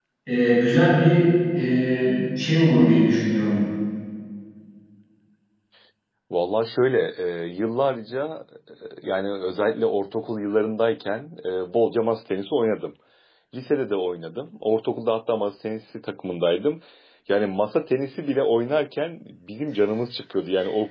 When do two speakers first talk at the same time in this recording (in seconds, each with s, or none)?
none